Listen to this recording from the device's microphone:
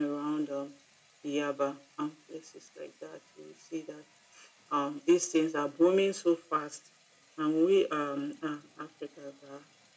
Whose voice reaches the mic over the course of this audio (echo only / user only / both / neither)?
echo only